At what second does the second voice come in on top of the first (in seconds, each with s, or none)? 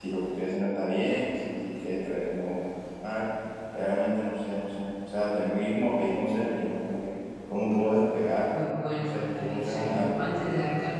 9.0 s